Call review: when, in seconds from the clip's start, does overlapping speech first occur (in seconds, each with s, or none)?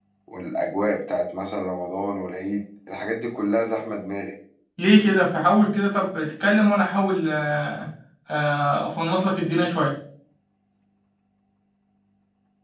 none